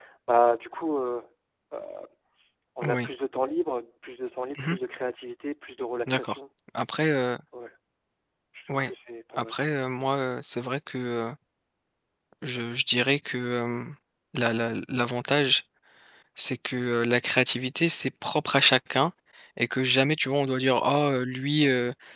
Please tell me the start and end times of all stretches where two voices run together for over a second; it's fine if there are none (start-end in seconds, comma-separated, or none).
none